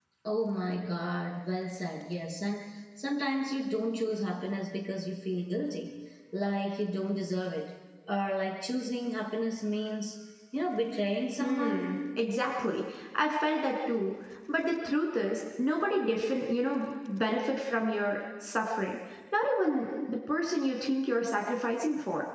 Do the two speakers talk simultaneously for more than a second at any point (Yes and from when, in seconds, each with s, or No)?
No